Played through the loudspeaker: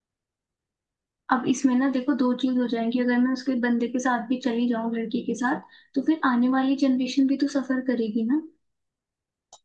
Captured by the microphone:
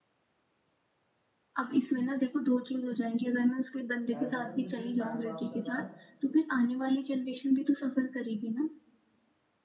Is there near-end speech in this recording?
Yes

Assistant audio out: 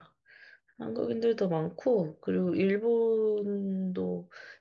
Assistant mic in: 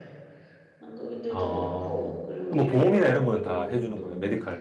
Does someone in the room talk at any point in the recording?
Yes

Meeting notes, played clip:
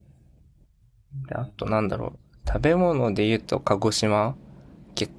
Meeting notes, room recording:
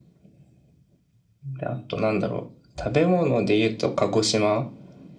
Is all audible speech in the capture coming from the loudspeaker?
Yes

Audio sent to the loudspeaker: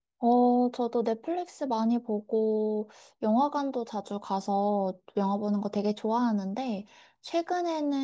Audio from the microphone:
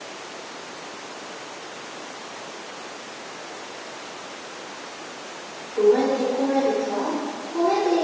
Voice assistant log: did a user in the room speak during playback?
Yes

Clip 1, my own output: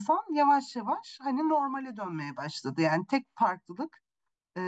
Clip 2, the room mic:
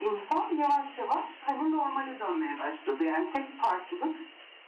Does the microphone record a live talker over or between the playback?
No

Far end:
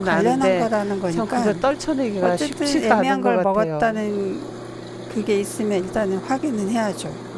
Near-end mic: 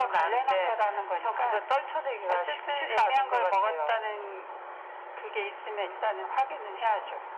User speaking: No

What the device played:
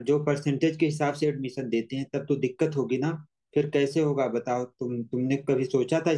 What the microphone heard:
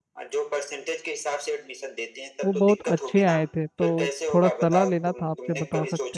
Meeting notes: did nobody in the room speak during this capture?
No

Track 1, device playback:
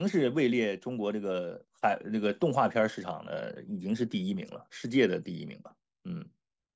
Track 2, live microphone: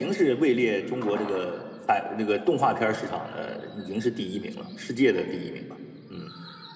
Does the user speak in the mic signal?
No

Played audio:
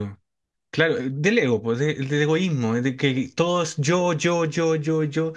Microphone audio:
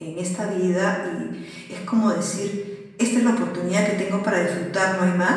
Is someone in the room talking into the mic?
Yes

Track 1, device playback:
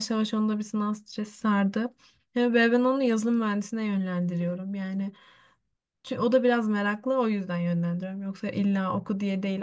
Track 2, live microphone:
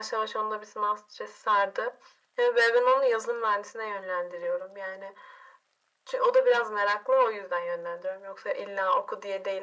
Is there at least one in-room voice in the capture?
No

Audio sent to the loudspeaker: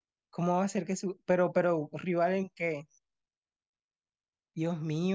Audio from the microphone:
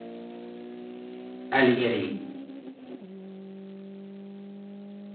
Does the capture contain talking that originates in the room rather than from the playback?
Yes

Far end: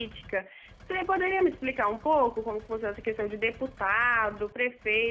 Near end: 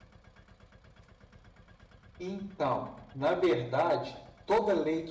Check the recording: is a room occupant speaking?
Yes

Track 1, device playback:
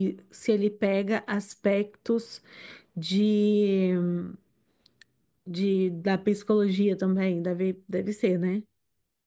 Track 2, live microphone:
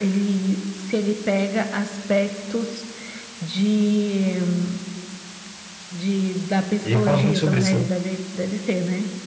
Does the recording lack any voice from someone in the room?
No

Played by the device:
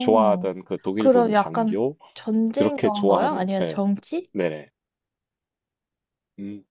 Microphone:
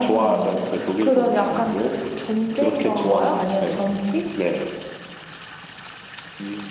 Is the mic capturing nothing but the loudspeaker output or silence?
Yes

